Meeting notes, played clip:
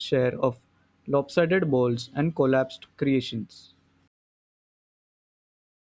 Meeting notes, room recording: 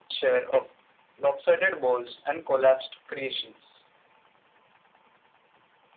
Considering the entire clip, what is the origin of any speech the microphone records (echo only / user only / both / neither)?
echo only